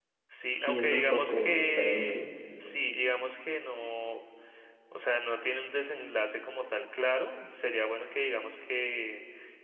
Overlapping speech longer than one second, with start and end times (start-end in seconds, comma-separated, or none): 0.5-2.3